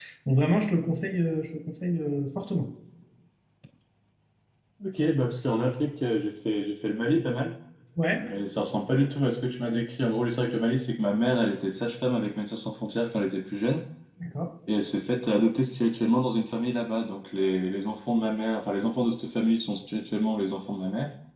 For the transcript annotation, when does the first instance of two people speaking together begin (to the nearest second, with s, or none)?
none